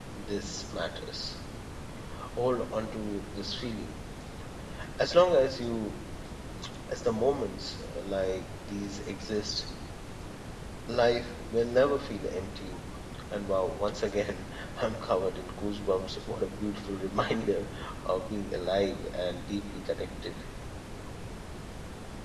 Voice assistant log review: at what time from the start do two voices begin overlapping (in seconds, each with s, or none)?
none